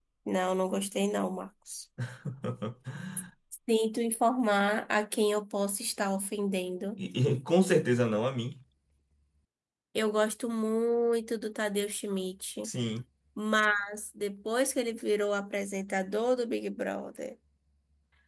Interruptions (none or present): none